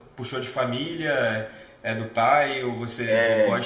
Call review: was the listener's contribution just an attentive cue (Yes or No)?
Yes